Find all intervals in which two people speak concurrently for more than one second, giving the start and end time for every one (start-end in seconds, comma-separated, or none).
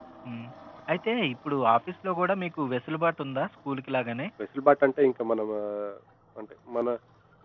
none